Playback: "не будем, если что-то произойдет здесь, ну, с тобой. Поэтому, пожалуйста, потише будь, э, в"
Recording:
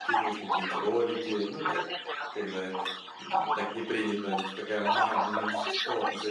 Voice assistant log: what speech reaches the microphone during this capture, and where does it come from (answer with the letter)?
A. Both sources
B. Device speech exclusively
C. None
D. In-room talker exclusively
A